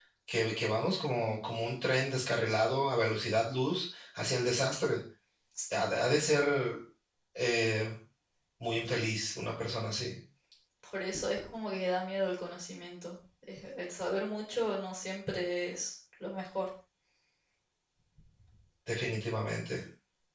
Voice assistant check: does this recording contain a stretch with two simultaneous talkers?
No

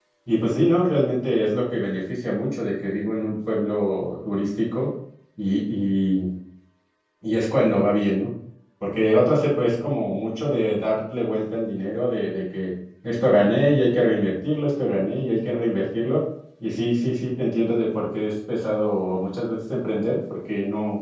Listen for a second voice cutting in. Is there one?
No

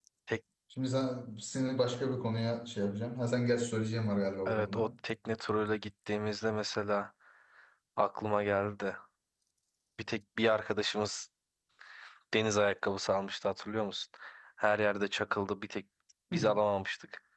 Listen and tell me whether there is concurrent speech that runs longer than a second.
No

